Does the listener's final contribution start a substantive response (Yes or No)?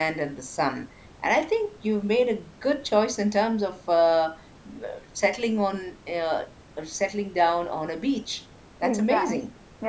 Yes